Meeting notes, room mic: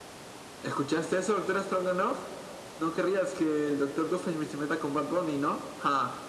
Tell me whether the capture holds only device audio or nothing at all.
Yes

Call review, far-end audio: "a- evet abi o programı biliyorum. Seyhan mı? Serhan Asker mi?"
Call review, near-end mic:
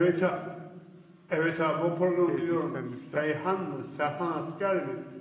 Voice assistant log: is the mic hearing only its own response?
No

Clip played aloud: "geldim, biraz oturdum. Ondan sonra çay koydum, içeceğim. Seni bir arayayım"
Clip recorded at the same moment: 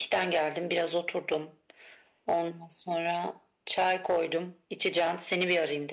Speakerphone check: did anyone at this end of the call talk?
No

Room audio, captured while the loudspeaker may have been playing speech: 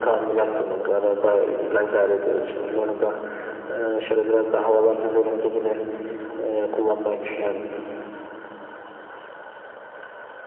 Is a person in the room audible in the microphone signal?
No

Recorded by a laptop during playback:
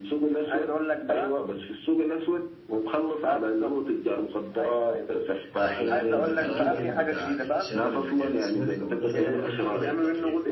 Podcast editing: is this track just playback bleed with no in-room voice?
No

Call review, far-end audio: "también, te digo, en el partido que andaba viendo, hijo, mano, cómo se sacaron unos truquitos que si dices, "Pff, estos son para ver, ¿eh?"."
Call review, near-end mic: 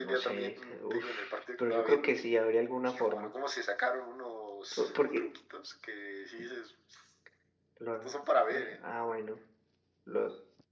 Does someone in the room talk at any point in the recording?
Yes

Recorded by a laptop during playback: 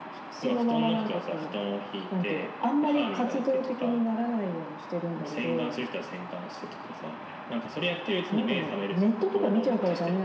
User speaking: No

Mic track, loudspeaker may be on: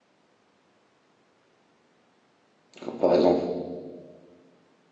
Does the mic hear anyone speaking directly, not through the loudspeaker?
Yes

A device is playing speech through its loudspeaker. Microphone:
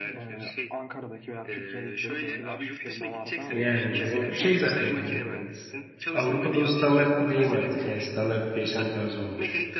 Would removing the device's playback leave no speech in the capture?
No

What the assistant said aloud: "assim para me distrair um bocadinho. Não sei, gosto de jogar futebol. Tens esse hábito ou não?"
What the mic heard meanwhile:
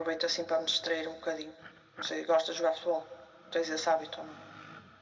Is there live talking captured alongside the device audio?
No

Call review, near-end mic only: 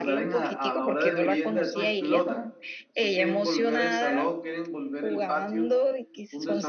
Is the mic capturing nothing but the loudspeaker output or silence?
No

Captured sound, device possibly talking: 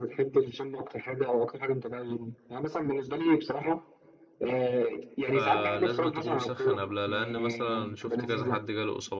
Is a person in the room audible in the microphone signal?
Yes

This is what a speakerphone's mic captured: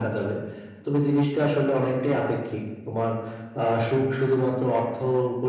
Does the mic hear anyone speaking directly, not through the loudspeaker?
No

